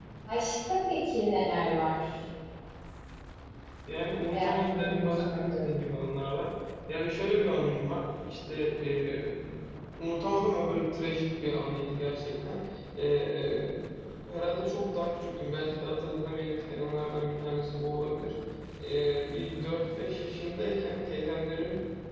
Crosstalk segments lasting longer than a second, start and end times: 4.3-5.7

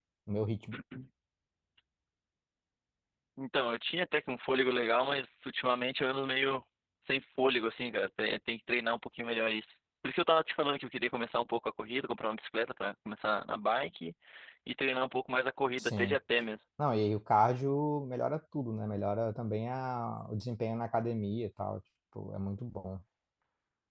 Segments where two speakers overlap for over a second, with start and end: none

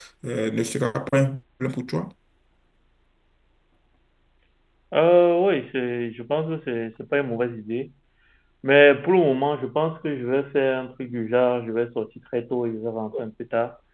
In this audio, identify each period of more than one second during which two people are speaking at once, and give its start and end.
none

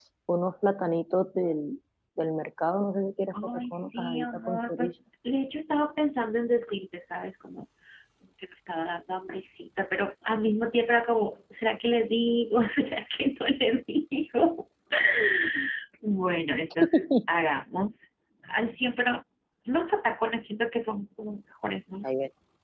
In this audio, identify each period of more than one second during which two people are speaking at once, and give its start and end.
3.4-4.9

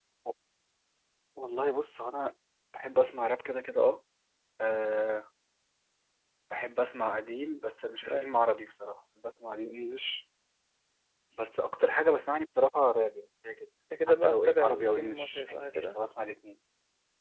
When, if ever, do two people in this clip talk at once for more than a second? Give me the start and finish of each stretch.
14.1-16.0

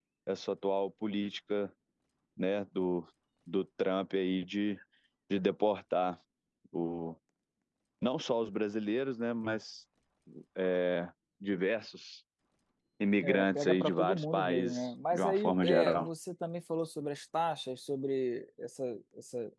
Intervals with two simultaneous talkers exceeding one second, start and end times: 13.2-16.1

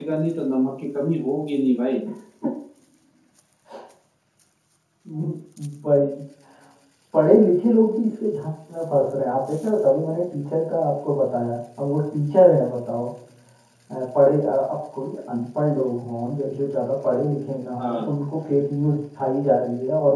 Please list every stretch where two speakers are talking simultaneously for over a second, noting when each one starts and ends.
none

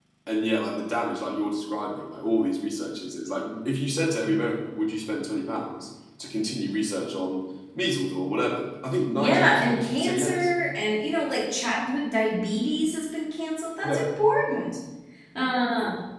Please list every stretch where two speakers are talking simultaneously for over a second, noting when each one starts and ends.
9.2-10.5

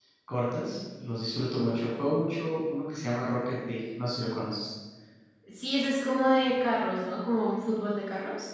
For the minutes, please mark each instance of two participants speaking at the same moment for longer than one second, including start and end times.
none

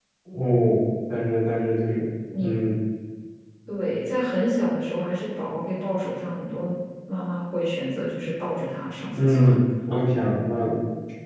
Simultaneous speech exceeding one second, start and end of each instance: none

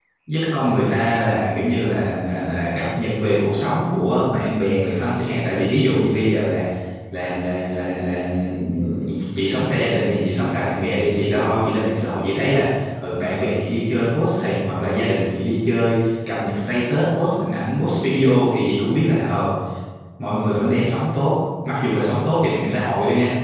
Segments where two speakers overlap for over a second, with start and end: none

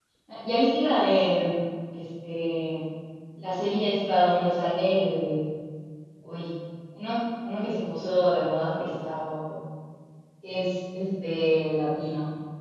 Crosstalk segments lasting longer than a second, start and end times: none

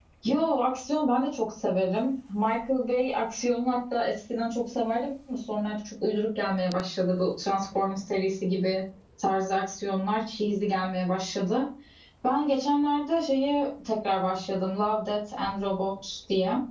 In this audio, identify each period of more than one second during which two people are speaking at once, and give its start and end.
none

